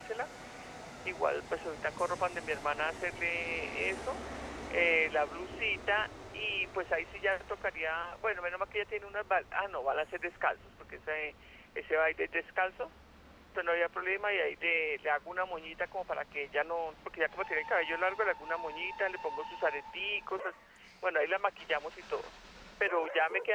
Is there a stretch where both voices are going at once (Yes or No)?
No